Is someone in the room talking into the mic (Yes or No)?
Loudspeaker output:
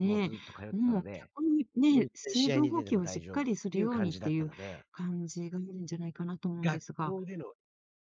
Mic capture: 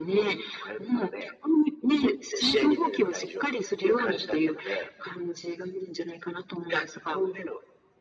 No